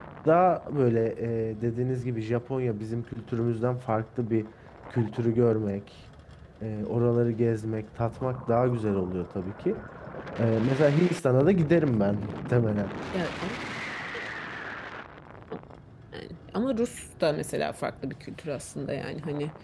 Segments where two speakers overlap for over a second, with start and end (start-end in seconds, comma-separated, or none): none